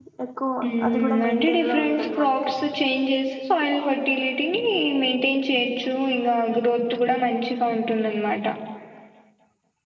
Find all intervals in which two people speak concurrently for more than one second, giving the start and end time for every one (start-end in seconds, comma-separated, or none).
0.9-2.5